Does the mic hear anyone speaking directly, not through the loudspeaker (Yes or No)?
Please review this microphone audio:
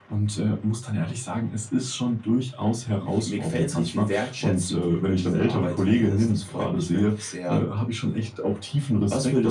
No